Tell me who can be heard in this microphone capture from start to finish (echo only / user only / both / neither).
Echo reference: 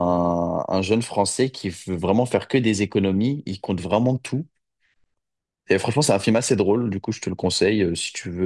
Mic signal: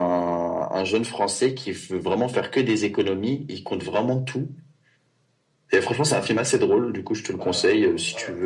both